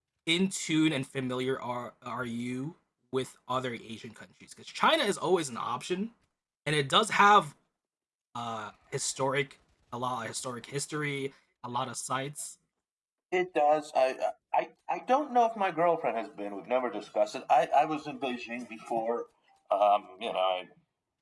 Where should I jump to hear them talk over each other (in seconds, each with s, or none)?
none